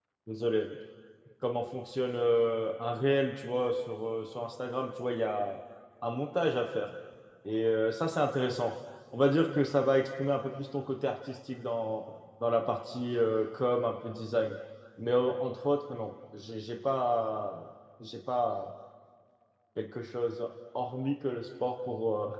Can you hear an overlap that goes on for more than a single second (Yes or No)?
No